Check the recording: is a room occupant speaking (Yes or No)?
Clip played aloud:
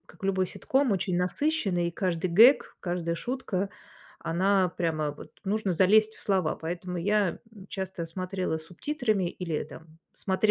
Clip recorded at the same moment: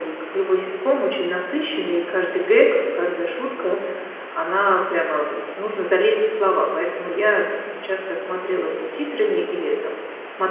No